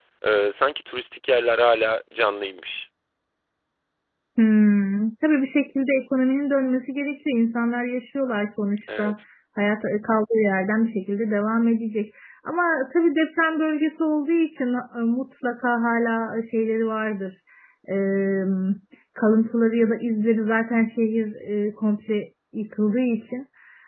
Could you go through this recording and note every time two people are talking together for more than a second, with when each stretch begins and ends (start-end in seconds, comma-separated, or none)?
none